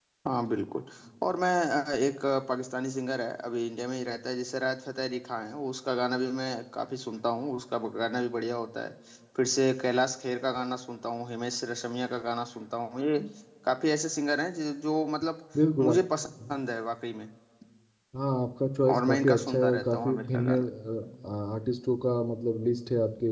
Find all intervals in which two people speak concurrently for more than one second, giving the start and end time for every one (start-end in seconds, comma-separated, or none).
18.9-20.7